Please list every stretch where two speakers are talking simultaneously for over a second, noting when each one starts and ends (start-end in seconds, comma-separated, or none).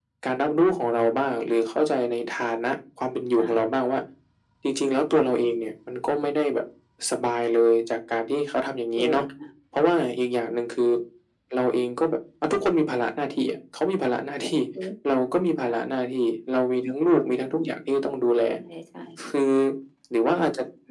none